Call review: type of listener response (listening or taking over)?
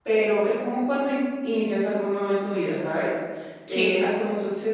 listening